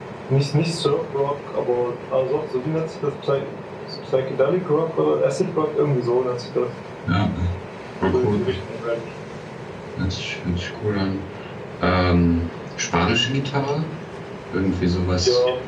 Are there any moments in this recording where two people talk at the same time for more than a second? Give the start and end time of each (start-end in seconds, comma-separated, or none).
none